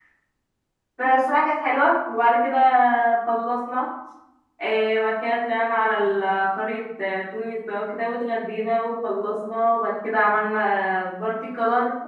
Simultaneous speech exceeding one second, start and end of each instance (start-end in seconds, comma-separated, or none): none